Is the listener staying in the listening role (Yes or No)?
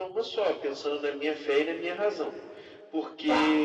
Yes